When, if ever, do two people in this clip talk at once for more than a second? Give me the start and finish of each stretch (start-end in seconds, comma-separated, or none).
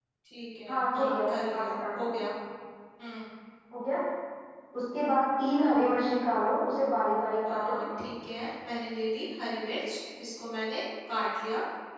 0.7-2.1